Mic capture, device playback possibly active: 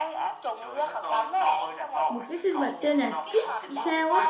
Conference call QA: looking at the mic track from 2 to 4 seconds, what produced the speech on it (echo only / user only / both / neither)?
both